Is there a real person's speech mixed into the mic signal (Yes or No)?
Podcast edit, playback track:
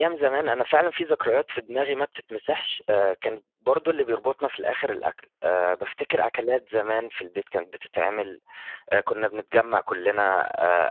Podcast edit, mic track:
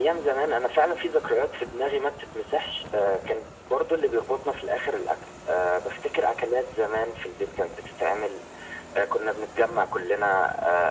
No